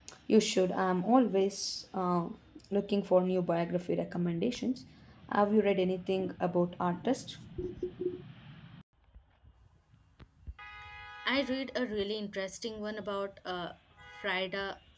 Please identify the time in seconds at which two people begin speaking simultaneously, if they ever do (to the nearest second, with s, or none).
none